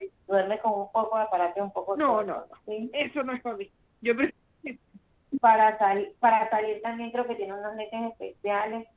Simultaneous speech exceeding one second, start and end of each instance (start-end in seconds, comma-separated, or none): none